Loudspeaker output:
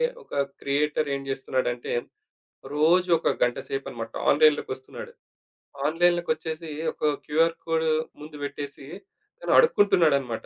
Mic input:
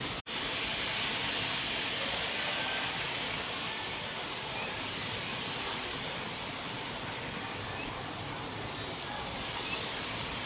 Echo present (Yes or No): No